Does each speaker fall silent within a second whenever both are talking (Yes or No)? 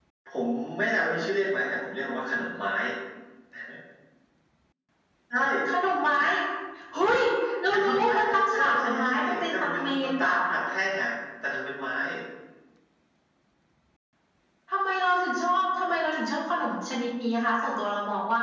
No